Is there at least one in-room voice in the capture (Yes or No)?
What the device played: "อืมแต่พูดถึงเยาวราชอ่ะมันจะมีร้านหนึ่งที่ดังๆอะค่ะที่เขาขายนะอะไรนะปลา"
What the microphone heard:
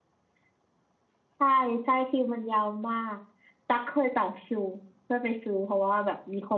Yes